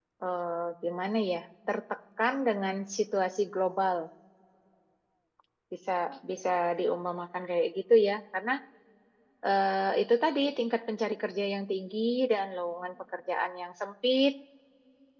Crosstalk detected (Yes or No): No